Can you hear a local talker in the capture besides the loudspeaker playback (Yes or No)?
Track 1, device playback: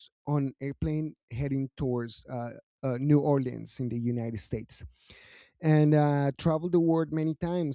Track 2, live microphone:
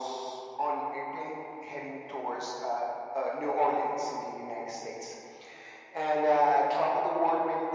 No